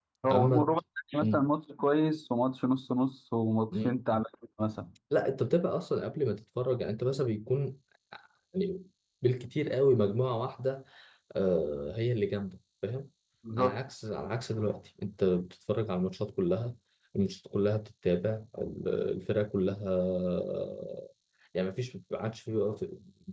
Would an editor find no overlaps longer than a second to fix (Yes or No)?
Yes